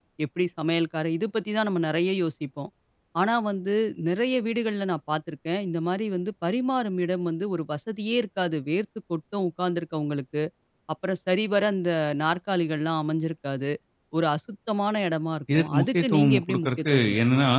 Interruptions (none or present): present